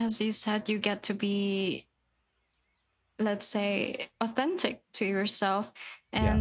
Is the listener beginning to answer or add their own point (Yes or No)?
No